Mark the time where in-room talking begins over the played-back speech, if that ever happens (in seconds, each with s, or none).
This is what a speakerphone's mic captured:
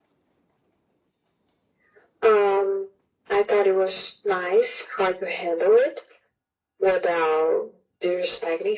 none